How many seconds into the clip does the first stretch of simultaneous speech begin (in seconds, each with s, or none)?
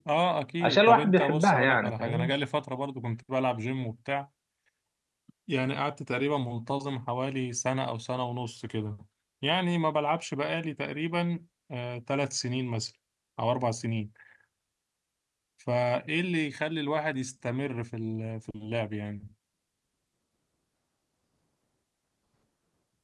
0.6 s